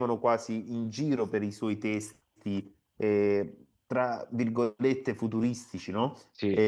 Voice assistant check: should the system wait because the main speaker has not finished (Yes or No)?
Yes